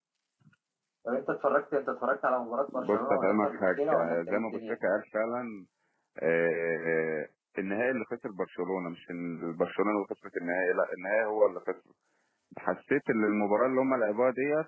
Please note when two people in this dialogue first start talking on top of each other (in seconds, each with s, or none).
2.7 s